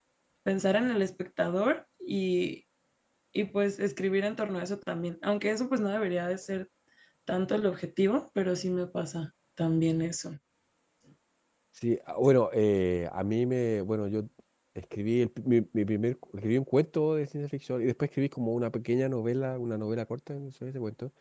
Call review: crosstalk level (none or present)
none